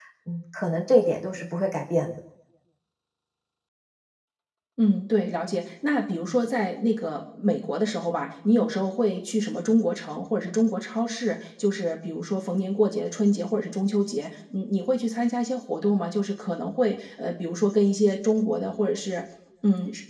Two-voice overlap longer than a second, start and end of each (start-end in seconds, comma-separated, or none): none